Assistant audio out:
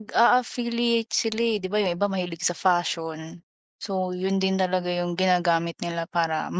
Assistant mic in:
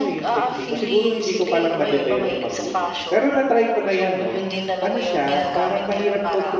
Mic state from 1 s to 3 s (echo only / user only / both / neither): both